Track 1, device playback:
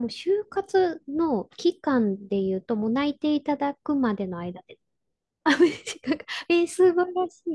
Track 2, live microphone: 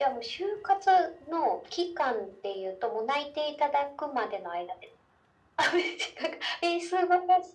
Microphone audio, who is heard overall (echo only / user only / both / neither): echo only